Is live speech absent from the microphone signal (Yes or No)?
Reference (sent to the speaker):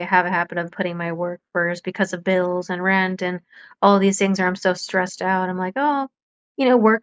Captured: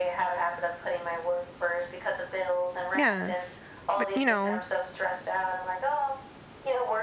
No